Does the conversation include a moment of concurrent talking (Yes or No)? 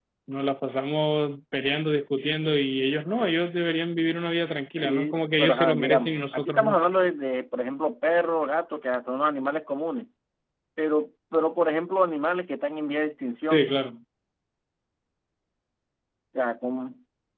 Yes